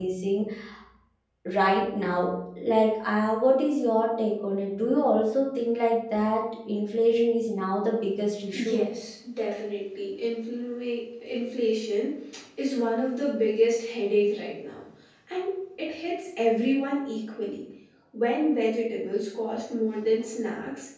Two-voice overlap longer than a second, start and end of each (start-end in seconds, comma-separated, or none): none